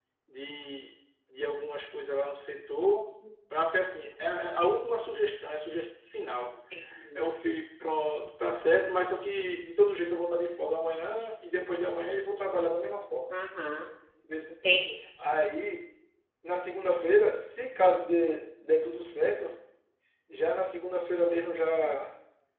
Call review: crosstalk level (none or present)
none